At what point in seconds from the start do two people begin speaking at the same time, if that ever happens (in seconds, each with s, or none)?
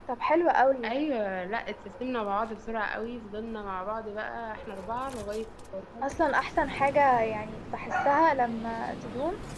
none